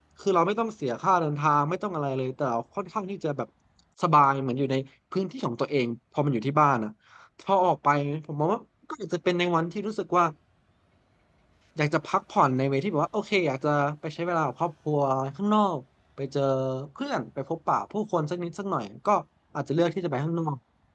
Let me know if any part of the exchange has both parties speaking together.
No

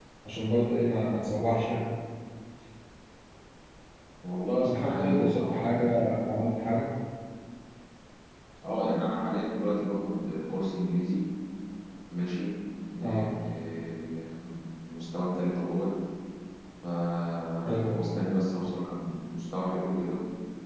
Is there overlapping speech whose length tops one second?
Yes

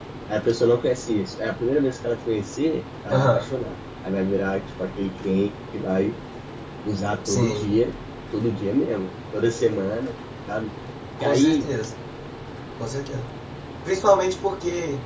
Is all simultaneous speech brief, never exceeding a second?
Yes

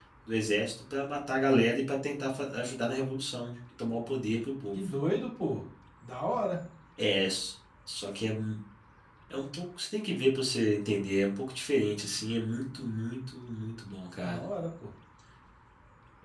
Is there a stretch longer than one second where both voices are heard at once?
No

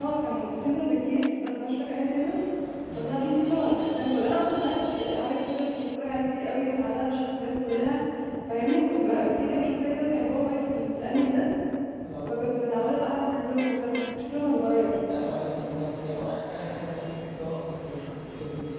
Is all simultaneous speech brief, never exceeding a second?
Yes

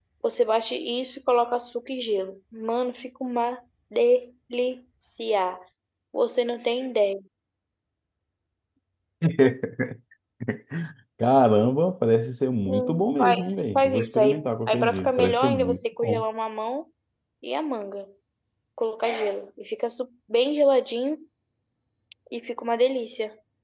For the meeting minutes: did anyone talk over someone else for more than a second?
Yes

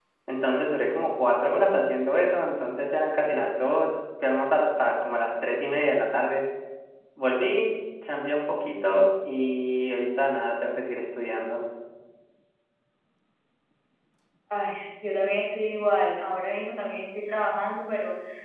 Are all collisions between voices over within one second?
Yes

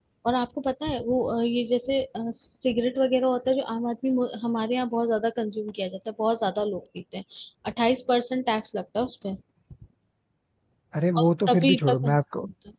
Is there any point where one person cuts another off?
Yes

